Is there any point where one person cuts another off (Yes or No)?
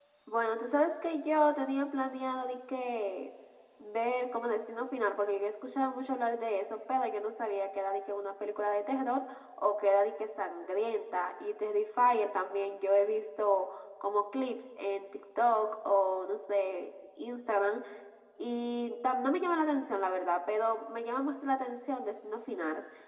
No